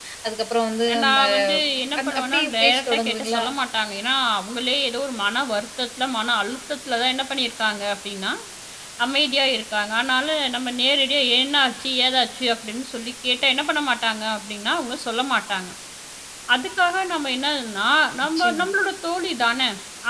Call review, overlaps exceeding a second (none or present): present